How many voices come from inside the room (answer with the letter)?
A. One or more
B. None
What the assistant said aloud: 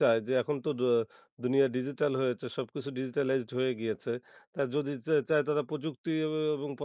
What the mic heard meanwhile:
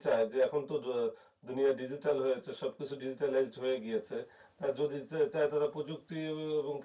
B